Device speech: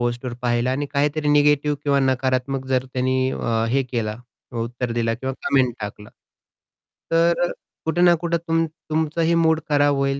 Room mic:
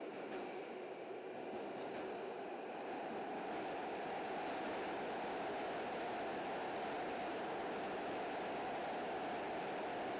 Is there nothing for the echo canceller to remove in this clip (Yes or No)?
Yes